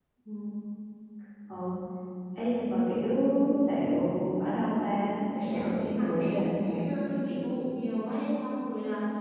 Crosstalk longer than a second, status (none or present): present